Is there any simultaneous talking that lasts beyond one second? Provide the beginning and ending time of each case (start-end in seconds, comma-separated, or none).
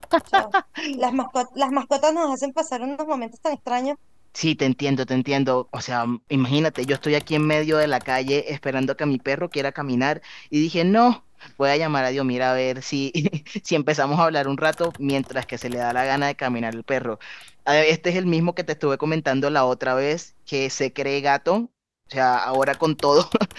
none